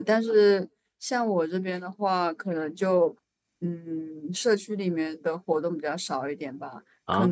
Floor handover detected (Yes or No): No